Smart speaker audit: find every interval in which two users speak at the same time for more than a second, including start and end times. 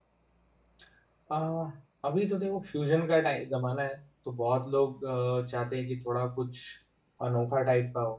none

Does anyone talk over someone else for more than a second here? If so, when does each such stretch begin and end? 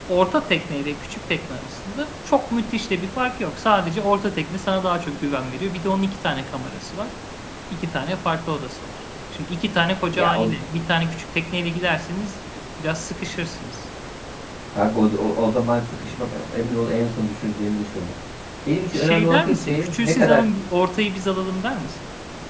18.9-20.4

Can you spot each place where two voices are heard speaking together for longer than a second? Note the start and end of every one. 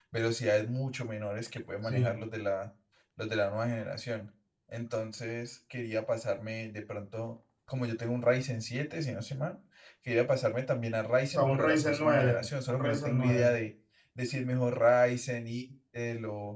11.3-13.5

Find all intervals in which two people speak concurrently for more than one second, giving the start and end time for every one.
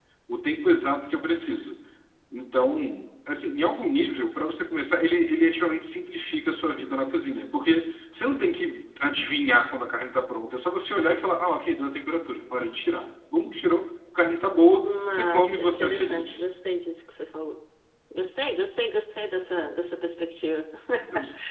14.8-16.4

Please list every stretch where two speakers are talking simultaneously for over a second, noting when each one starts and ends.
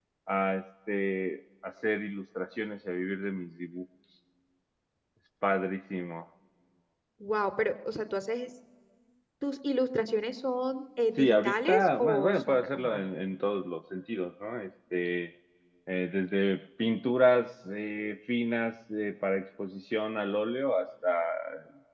11.2-13.1

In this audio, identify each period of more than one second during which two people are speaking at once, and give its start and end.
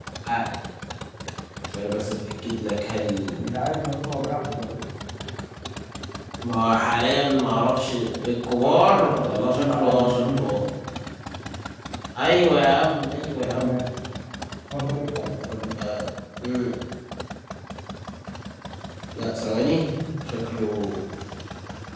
8.6-10.5

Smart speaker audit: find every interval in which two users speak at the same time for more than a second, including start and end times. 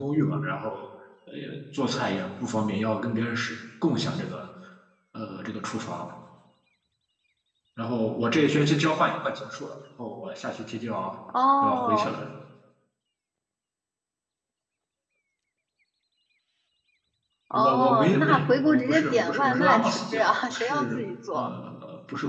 17.5-20.9

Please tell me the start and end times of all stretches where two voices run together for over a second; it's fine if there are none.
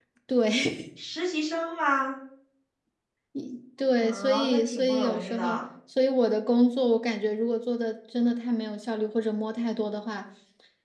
4.0-5.6

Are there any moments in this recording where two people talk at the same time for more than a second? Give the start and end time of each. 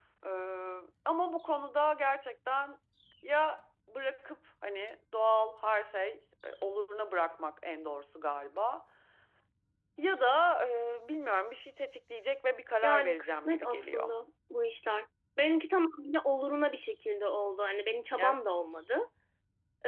12.8-14.1

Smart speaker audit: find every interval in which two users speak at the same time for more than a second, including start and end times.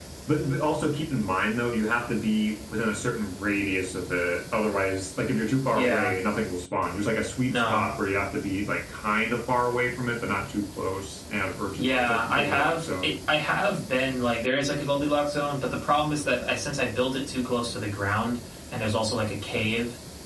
11.7-13.2

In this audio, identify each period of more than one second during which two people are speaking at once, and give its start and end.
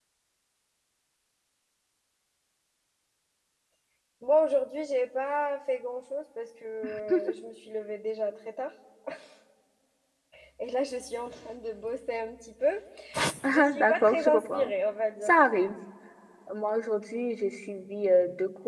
13.5-14.7

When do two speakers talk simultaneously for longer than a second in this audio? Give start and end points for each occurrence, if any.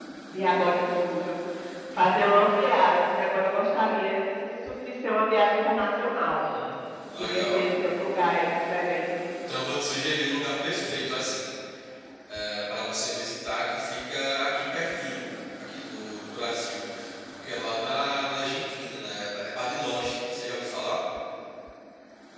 none

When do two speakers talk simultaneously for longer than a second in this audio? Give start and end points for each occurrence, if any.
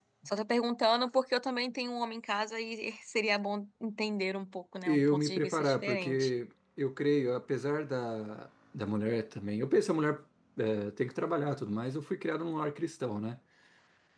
4.8-6.3

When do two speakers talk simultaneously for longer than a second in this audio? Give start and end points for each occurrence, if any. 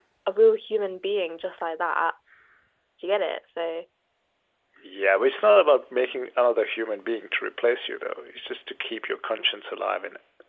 none

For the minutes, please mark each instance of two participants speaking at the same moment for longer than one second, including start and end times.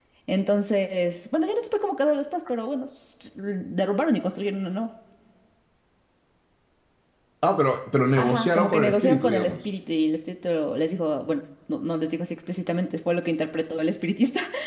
8.2-9.6

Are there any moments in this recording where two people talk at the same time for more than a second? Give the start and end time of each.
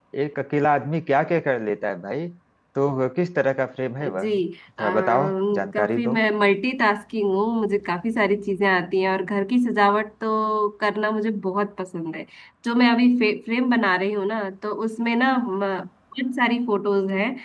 4.8-6.2

